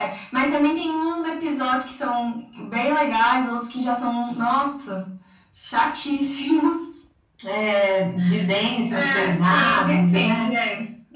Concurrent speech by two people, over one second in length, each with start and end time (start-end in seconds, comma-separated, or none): 8.9-10.5